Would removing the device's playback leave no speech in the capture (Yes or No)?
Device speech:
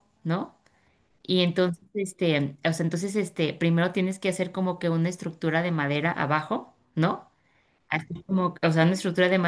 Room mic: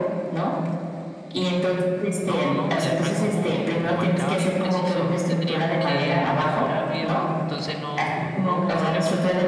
No